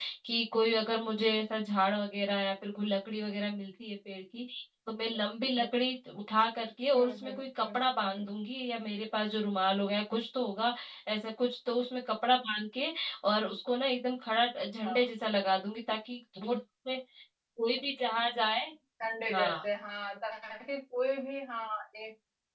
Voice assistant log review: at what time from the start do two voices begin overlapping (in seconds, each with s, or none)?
6.9 s